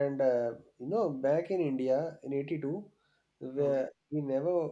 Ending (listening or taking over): listening